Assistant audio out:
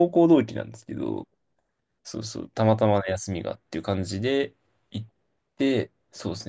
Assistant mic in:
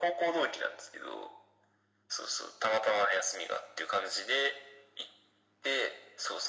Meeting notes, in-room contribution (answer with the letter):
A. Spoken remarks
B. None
B